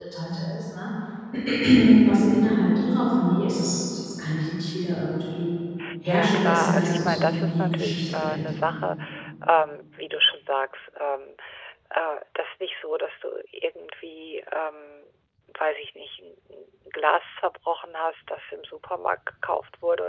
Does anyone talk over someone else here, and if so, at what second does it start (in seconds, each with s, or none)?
5.8 s